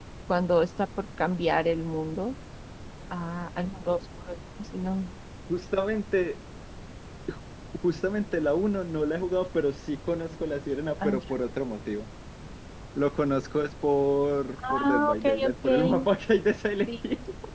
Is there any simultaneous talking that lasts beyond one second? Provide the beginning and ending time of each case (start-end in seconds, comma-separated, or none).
14.7-16.1